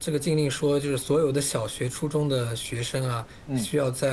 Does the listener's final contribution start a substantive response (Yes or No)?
No